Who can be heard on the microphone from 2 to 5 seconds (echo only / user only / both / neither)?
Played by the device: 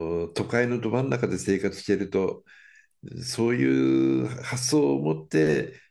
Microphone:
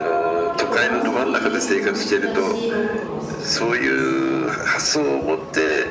both